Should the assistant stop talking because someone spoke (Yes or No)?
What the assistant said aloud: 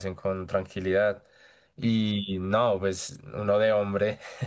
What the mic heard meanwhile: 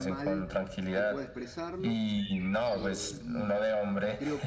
Yes